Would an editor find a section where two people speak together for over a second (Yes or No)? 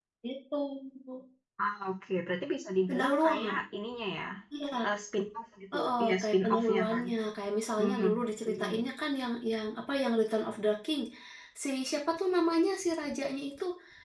Yes